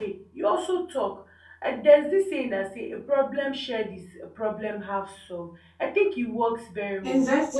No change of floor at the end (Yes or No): No